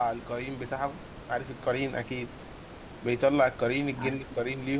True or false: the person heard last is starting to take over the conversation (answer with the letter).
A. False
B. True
A